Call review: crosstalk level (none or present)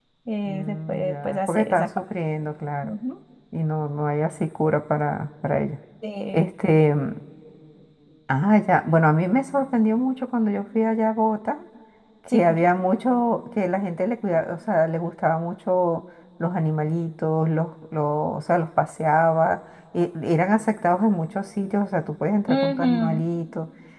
present